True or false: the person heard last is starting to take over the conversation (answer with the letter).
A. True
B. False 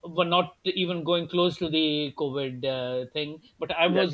B